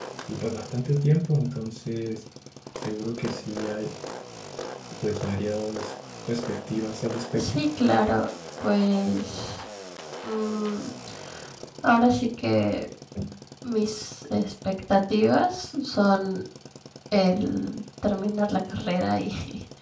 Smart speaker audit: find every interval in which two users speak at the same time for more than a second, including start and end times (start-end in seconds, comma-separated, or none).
none